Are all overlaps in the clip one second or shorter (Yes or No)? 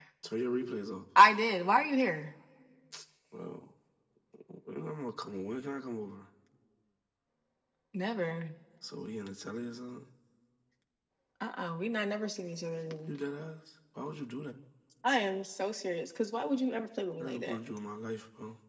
Yes